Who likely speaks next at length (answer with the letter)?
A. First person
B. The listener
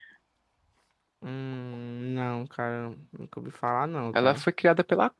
B